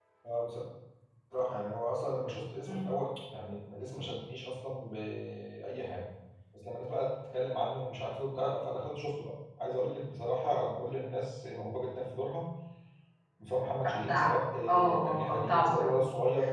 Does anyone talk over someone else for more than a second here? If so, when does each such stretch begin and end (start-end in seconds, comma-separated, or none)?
14.7-16.0